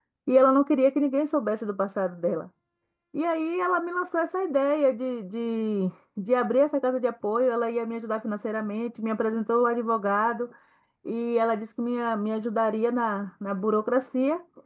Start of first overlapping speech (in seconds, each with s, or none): none